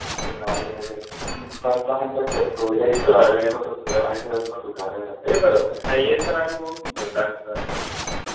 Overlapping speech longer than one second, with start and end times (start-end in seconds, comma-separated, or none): 2.8-4.2